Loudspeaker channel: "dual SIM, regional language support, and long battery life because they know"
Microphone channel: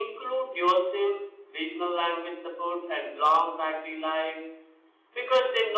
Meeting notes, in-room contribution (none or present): none